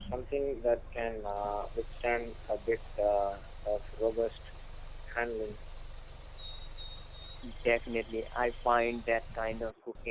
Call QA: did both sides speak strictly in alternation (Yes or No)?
Yes